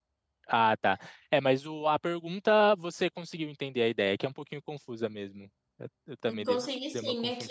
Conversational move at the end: taking over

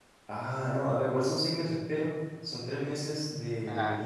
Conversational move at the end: listening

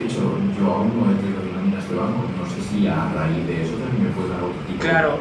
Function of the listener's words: taking over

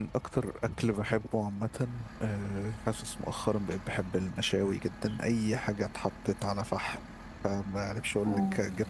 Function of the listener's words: listening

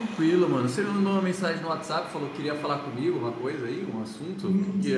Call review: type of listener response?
taking over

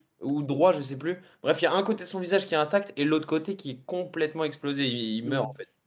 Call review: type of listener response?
taking over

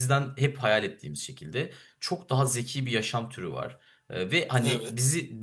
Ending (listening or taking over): listening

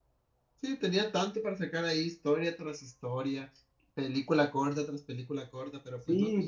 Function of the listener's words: taking over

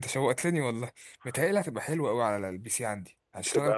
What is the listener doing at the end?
listening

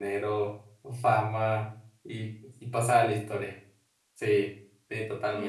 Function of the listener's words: taking over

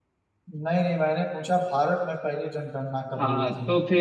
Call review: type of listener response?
taking over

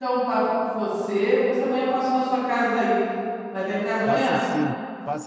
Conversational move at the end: taking over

